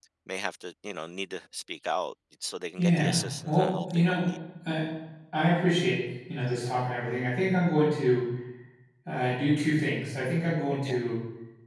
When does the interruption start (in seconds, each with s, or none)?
2.8 s